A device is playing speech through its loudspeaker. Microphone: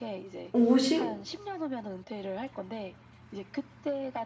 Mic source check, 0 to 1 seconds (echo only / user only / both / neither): both